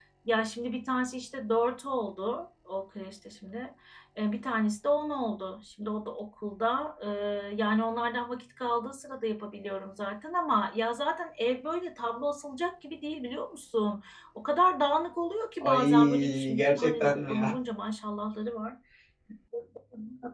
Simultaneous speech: Yes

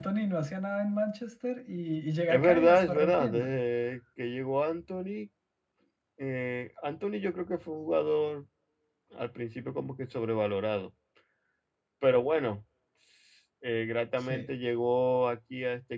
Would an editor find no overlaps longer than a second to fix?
No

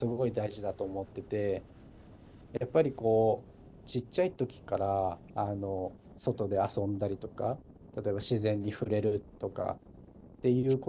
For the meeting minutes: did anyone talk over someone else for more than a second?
No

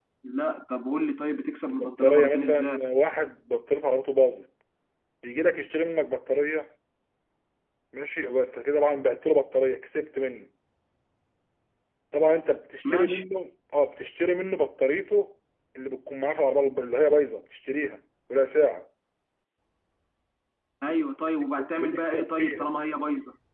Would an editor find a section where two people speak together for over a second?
Yes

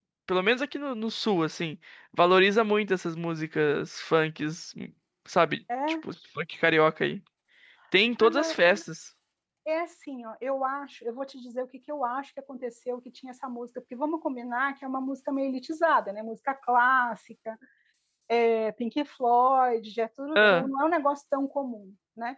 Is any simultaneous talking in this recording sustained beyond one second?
No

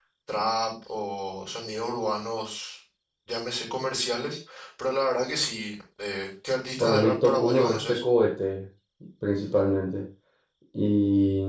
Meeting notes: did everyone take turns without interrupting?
No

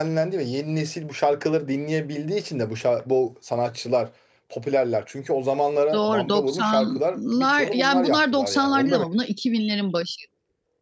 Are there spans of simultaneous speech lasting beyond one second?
Yes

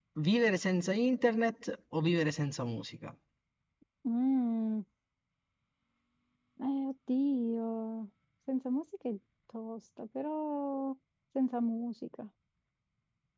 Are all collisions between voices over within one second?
Yes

